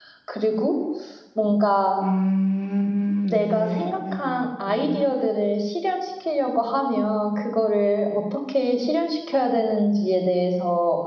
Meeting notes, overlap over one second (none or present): present